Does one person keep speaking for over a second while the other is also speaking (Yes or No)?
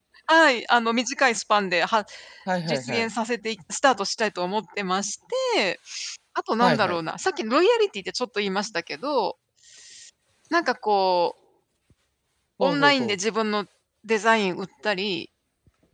No